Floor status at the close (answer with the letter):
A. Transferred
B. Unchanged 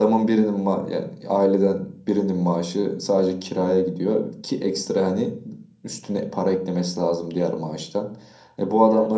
B